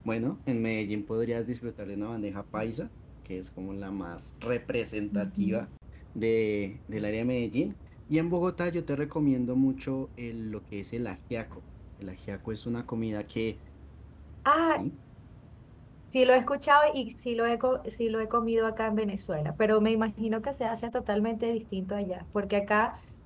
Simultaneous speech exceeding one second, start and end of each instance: none

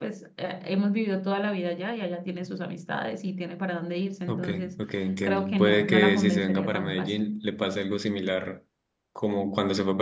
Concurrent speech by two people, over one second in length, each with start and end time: 5.2-7.2

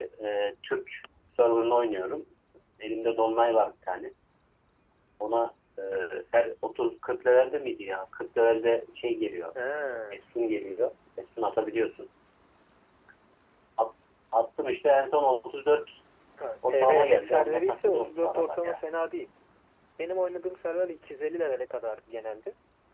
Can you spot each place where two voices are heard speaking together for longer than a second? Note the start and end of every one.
16.7-18.7

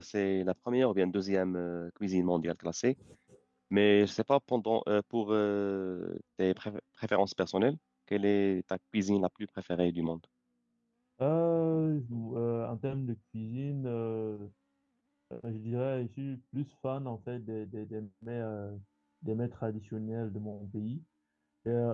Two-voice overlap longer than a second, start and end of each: none

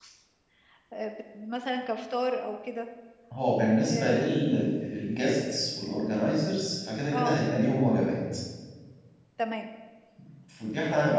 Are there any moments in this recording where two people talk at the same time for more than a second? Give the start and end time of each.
none

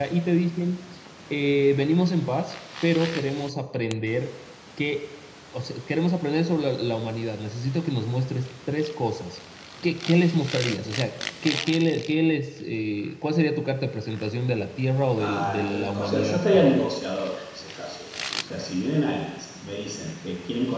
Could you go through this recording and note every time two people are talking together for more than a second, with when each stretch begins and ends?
15.2-16.9

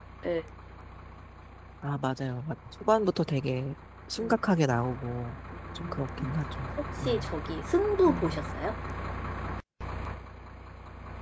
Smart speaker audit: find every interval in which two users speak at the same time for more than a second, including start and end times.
none

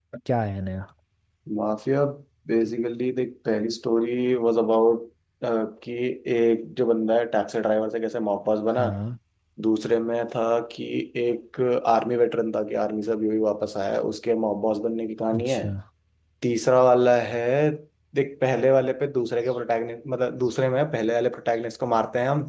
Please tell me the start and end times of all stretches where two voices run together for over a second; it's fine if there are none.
none

